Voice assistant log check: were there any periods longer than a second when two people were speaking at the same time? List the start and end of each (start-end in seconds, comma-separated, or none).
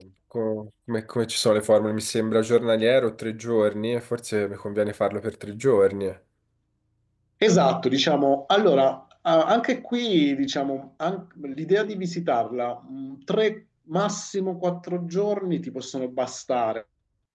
none